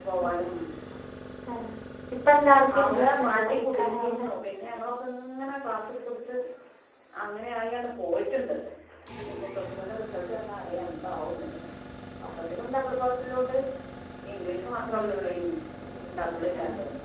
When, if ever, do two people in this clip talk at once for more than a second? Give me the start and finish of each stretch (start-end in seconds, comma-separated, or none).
2.9-4.3